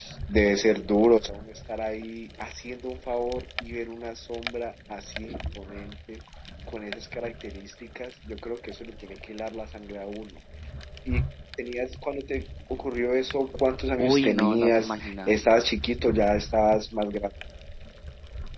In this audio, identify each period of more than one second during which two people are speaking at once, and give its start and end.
14.0-15.5

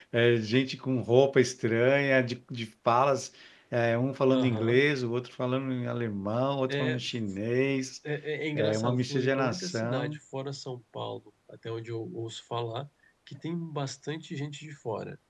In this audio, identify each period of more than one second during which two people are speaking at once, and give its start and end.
8.6-10.2

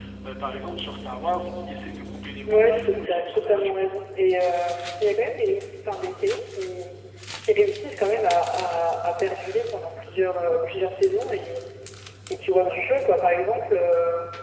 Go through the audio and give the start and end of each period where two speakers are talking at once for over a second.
2.5-3.7

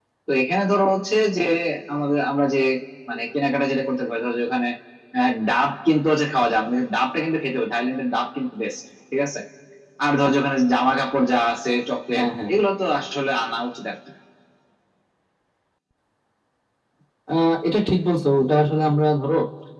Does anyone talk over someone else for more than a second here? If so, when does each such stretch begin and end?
none

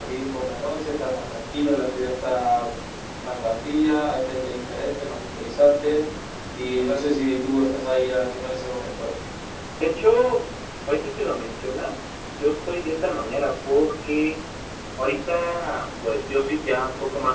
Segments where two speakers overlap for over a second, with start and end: none

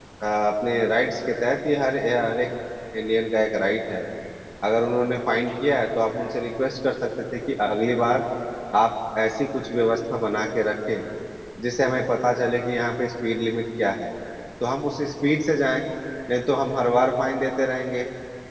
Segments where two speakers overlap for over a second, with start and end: none

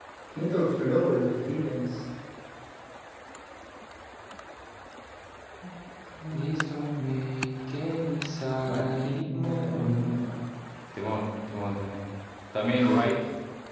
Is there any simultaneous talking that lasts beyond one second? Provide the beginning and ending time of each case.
8.7-10.2

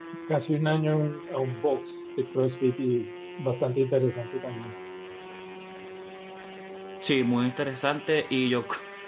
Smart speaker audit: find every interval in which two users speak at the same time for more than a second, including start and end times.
none

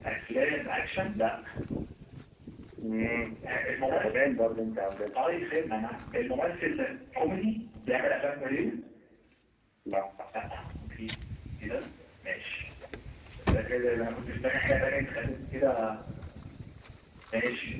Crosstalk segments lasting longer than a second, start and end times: none

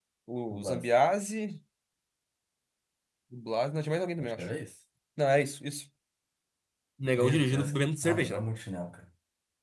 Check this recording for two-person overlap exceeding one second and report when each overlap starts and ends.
7.1-8.4

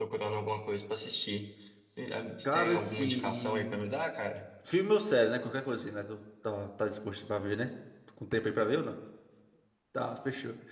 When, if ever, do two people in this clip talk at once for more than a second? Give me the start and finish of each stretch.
2.4-3.8

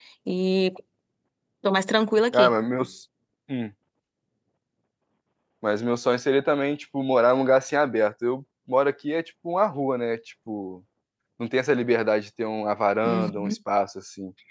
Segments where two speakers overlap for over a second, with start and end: none

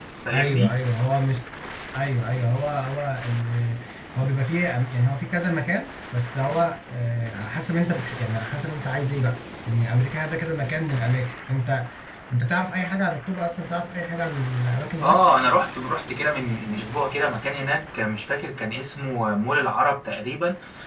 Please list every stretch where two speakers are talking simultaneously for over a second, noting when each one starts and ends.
none

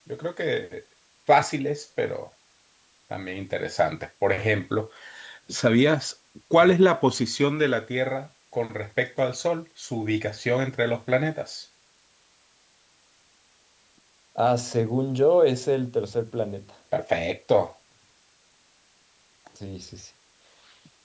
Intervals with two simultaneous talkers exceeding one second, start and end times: none

